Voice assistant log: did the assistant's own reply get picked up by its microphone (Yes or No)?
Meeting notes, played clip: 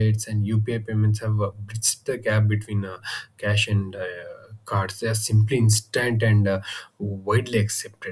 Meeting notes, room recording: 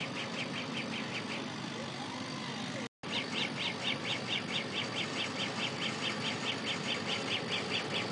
No